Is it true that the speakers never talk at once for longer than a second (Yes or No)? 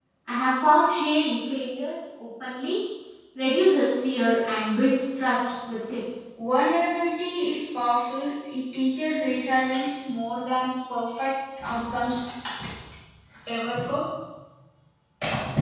Yes